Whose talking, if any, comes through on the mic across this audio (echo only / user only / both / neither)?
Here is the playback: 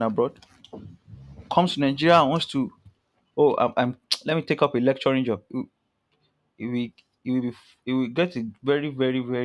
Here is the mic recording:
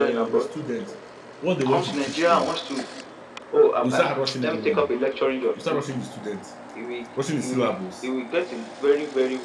both